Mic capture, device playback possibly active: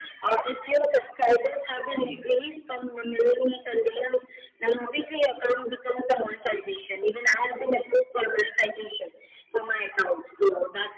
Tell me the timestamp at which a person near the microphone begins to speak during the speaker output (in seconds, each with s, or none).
2.0 s